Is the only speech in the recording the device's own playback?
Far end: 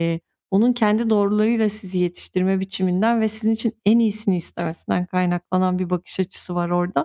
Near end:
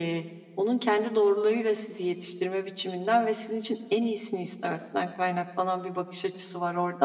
Yes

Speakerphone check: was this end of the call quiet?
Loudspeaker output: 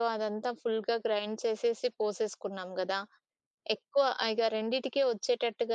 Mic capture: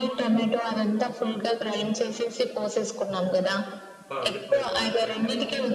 No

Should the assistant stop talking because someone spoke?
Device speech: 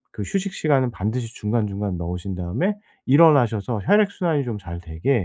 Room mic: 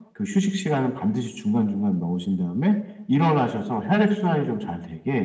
No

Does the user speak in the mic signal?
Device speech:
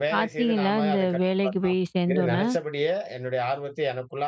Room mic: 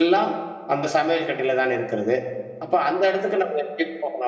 Yes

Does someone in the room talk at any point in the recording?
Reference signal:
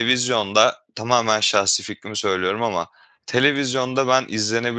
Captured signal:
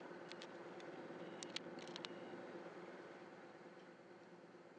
No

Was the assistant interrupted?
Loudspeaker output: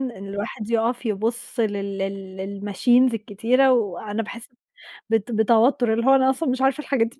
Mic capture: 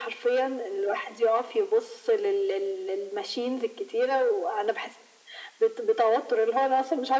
No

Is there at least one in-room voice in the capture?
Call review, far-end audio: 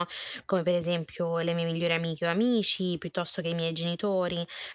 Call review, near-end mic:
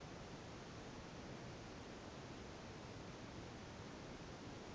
No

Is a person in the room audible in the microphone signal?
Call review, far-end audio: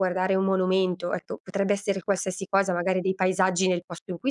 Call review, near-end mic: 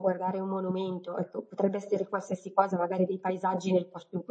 No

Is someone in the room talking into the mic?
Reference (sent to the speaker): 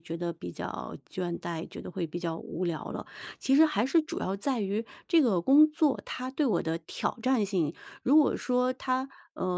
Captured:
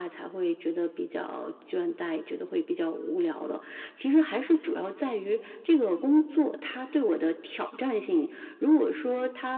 No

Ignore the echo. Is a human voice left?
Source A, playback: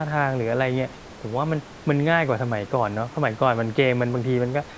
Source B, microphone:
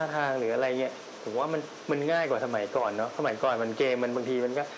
No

